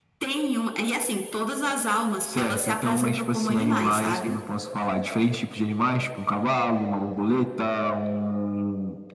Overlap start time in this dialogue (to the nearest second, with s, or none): 2 s